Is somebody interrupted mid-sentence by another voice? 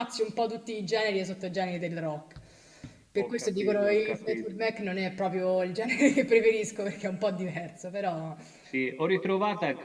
Yes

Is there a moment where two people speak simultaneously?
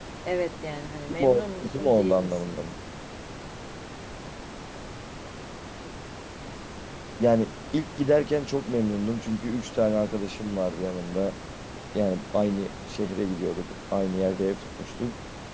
Yes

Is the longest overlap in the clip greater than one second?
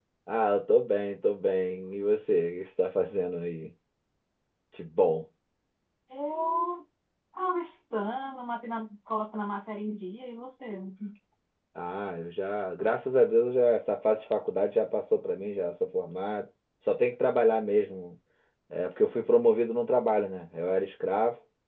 No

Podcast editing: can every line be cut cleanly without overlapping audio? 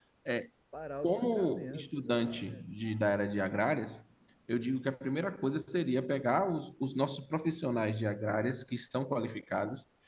No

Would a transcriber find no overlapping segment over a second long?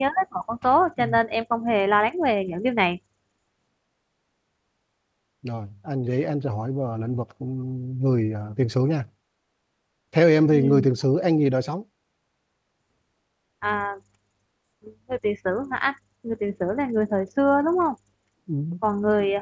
Yes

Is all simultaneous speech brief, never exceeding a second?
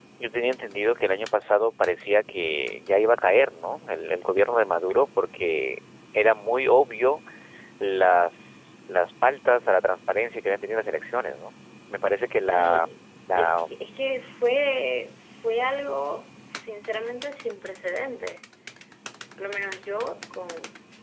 Yes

